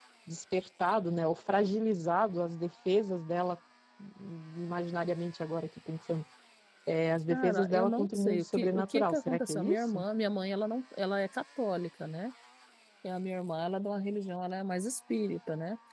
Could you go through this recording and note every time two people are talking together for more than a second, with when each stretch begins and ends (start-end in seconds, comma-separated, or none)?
7.3-10.0